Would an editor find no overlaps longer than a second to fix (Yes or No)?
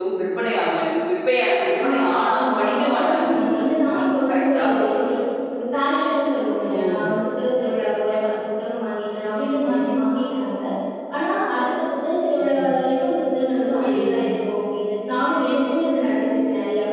No